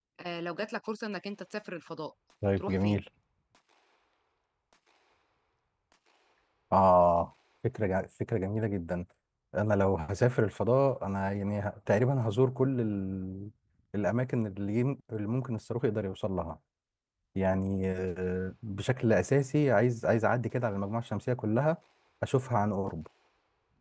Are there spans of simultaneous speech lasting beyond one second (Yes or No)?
No